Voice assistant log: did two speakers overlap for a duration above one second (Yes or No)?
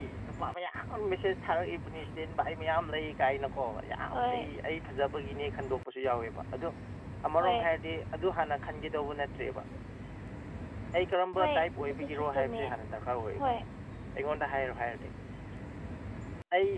Yes